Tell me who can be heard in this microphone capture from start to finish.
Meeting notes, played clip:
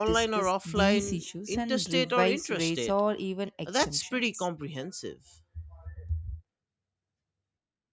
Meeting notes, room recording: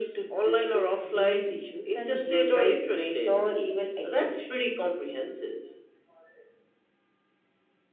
echo only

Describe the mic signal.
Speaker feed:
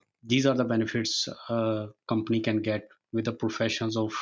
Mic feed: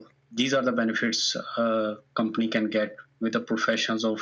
echo only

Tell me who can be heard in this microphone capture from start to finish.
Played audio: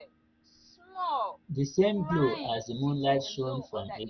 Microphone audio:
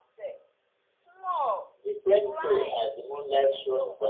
echo only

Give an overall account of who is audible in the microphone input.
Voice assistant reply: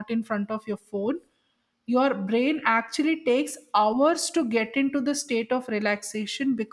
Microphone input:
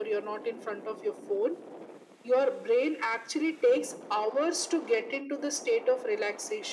echo only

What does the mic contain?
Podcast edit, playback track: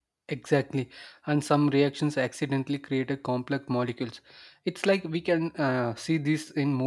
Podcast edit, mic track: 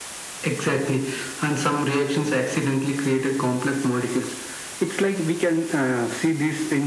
echo only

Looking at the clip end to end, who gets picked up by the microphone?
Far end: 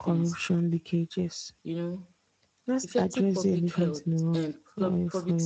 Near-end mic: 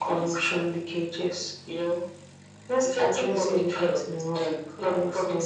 echo only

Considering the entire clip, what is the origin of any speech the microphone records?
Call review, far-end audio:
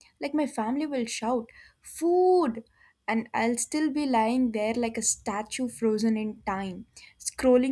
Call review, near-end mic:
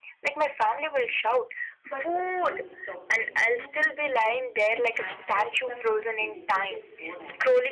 both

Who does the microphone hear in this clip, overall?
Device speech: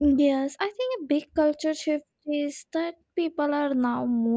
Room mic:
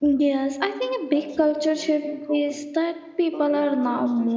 both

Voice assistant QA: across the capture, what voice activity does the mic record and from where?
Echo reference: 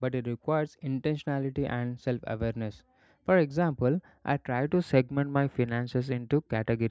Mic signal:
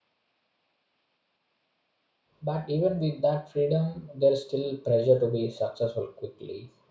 user only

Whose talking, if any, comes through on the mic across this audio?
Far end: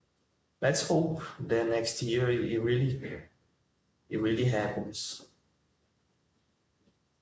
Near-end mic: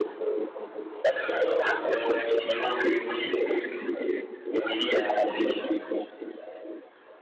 echo only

